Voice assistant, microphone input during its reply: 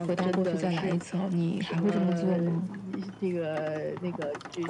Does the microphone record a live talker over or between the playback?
No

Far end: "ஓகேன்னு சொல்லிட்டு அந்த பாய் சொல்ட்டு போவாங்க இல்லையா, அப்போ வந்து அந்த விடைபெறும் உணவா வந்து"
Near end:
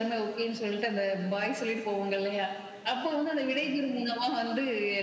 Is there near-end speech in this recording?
No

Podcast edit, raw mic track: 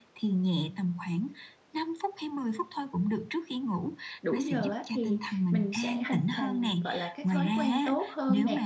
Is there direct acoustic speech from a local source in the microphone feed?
Yes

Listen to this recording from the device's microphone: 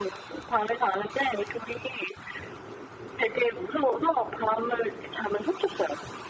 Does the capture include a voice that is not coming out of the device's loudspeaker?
No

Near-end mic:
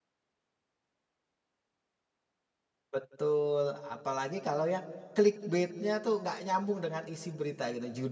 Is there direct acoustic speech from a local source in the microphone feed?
Yes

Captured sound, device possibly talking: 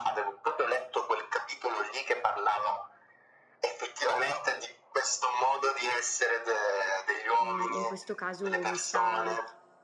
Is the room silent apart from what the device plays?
No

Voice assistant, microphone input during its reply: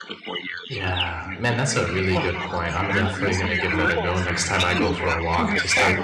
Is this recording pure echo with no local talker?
No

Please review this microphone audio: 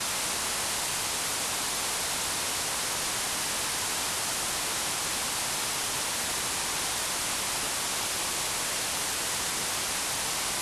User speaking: No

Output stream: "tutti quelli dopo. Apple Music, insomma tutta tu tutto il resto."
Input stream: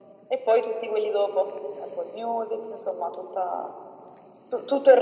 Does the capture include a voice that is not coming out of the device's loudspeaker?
No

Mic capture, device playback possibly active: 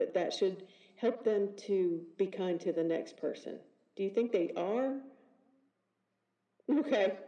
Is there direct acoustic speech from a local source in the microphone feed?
No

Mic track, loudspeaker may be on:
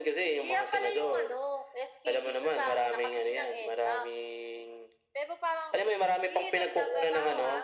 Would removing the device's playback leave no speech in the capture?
Yes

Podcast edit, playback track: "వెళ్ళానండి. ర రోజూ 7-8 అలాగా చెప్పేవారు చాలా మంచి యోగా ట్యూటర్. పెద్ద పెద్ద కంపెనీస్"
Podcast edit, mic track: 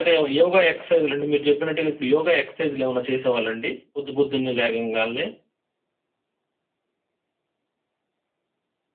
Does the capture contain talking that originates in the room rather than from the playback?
Yes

